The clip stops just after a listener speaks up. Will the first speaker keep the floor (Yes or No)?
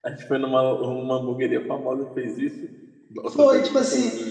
No